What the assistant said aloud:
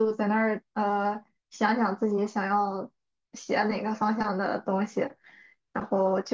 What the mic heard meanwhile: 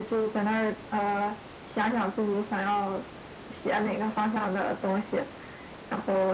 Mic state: echo only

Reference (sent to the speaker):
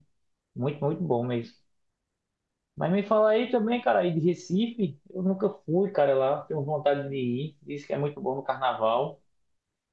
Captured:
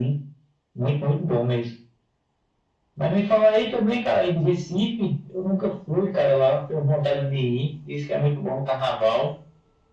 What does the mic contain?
echo only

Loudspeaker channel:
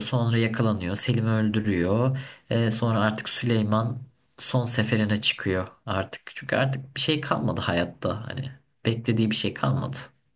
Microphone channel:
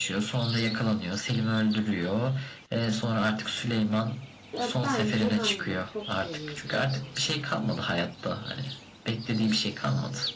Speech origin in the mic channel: both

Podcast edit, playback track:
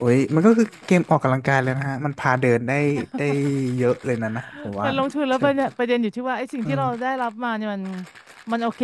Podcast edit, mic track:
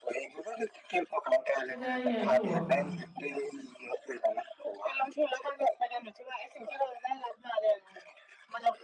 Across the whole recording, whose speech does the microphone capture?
both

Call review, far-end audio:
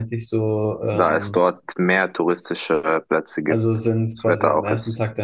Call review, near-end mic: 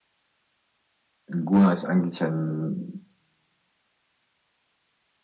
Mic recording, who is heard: user only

